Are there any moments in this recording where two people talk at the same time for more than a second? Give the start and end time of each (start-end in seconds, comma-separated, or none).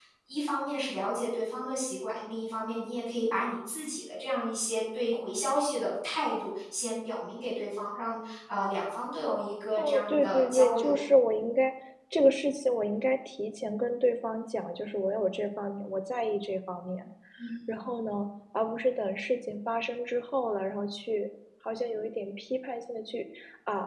9.8-11.0